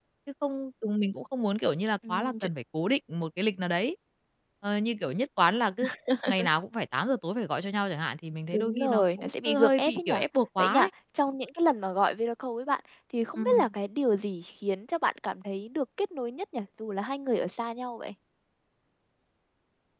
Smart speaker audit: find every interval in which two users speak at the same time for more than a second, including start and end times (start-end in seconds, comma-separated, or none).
8.5-10.1